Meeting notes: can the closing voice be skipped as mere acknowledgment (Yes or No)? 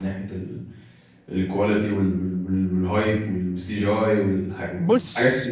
No